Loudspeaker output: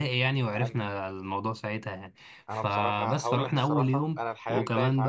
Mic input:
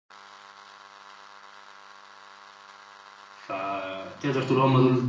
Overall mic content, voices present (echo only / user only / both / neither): user only